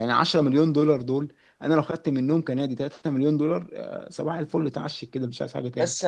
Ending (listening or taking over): taking over